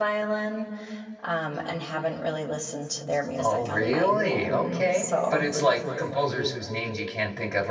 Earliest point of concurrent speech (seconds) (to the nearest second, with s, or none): 3 s